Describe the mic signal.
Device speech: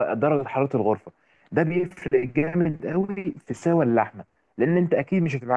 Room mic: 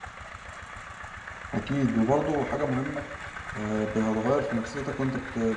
user only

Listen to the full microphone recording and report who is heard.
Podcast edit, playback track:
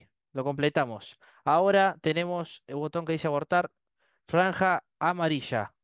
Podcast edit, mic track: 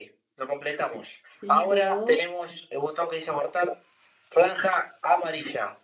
both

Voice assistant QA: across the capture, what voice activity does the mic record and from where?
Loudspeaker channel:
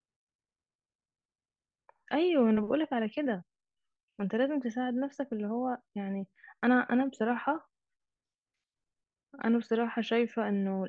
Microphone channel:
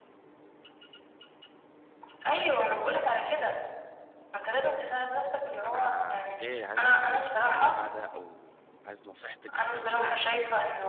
both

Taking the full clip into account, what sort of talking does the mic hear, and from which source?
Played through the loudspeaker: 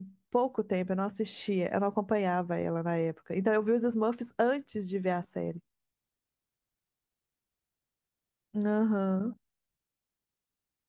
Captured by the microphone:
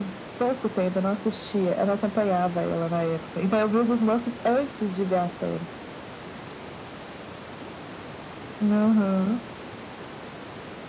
echo only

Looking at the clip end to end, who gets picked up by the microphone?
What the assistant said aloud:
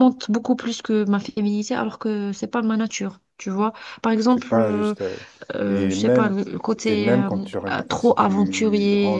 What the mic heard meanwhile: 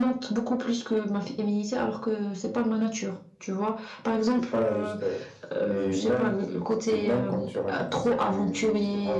echo only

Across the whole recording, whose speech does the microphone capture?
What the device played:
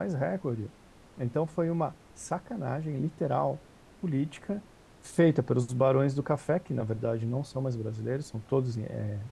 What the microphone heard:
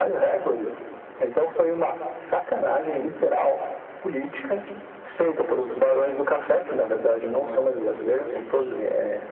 both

